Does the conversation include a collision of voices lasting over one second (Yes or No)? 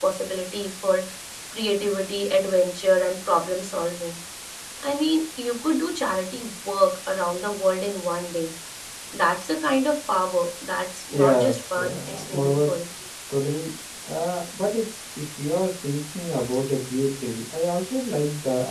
Yes